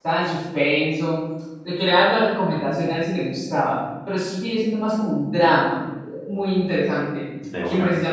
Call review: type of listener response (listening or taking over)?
listening